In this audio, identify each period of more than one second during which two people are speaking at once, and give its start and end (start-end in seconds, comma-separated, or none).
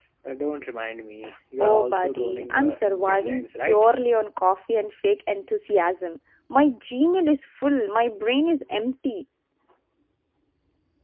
1.6-3.9